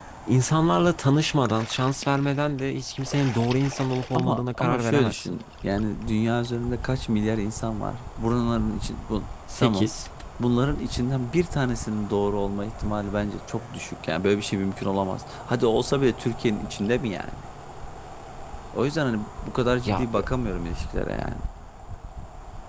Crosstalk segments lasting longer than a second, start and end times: 4.1-5.4

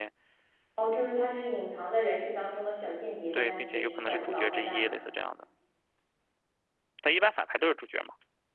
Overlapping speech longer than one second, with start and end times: 3.3-4.9

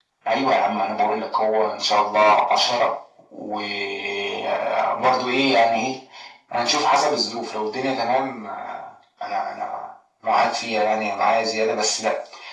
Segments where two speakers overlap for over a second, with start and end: none

